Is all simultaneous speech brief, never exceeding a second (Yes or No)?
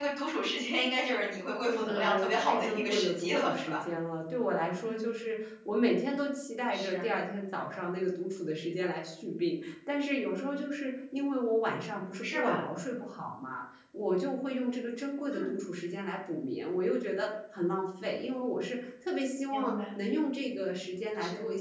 No